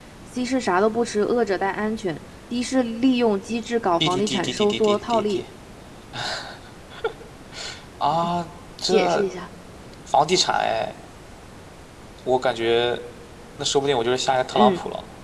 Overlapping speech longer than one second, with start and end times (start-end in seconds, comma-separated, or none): 4.0-5.3